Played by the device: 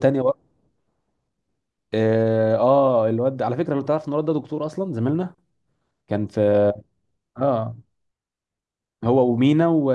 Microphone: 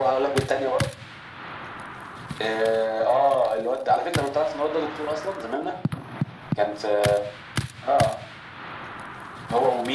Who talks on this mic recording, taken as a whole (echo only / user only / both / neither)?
echo only